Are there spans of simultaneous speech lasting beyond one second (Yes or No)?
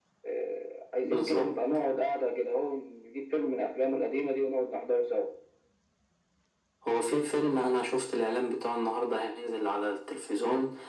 No